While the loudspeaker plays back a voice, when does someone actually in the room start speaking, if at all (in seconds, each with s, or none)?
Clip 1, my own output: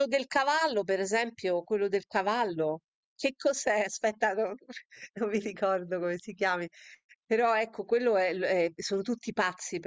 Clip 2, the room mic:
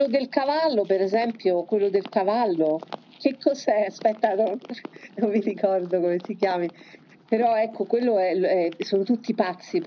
none